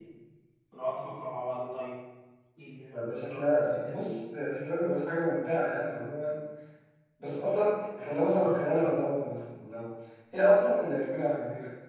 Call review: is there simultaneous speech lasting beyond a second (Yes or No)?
Yes